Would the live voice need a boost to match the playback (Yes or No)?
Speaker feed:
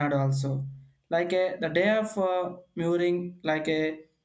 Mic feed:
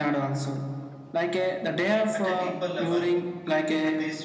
Yes